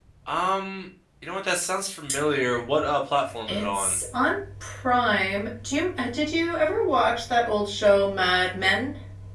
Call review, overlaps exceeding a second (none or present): none